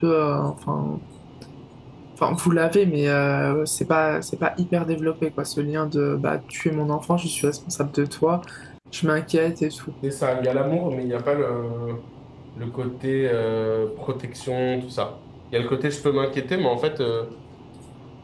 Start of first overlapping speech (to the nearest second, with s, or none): none